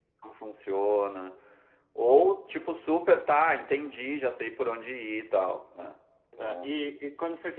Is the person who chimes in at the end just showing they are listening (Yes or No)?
No